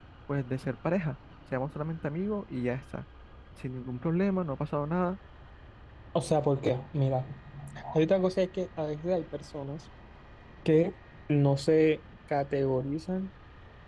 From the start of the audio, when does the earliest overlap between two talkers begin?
none

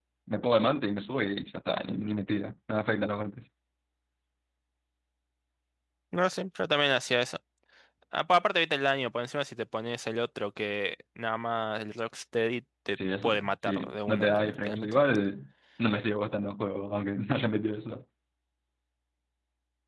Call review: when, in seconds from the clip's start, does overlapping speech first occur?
13 s

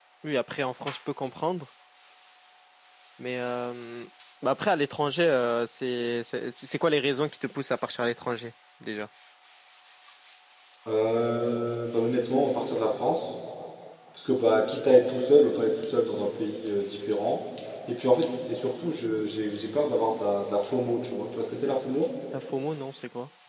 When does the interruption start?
none

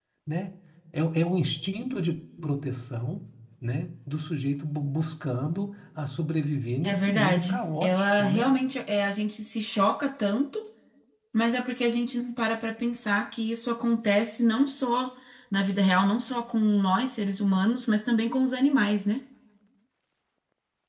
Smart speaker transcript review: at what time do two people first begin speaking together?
7 s

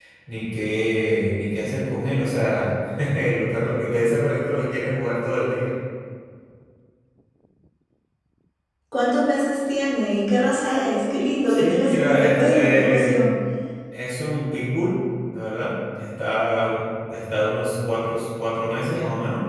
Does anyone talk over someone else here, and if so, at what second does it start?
11 s

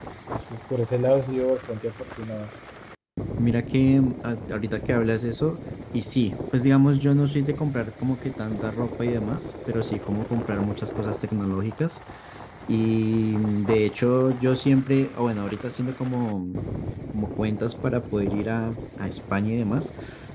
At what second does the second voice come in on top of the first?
none

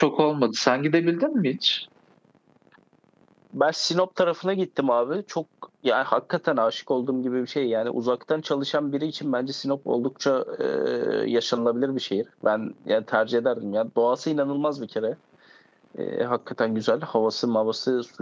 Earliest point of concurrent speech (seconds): none

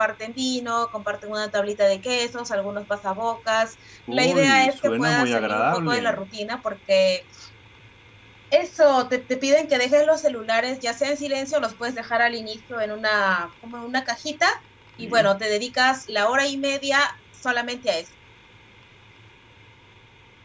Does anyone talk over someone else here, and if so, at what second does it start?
4 s

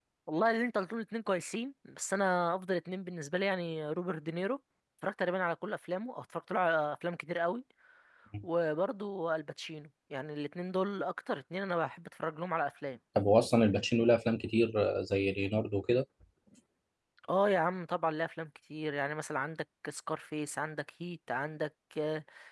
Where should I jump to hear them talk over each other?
none

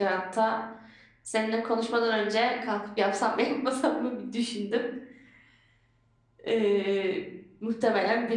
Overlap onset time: none

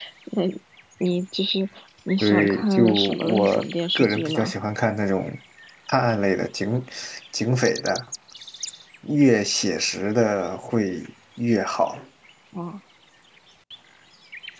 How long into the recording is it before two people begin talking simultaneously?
2 s

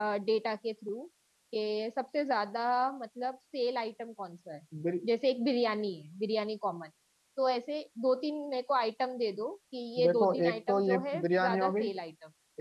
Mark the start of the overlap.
10 s

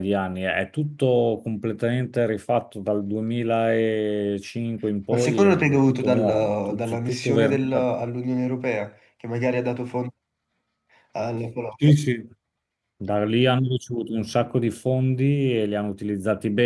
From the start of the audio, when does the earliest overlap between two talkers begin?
5 s

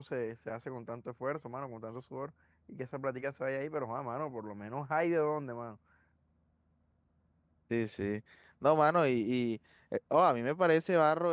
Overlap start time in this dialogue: none

